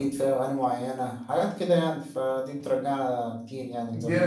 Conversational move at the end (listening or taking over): taking over